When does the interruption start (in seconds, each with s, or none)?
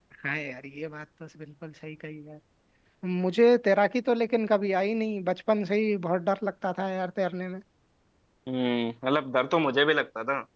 none